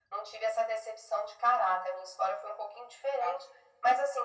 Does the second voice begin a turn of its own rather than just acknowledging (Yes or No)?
No